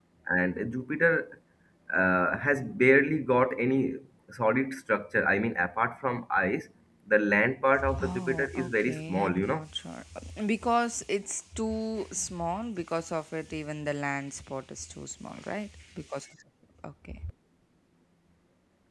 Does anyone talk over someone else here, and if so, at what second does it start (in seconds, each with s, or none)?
7.8 s